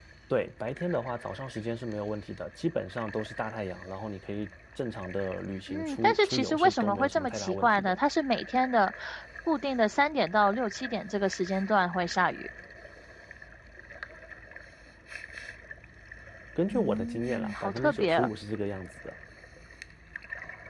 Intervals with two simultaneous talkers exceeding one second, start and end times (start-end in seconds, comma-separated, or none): 5.7-8.0, 16.7-18.3